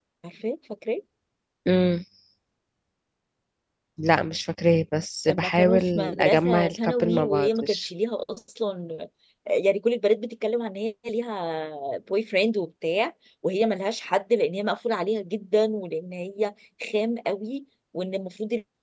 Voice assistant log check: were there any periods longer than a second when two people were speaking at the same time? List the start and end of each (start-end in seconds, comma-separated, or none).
5.3-7.9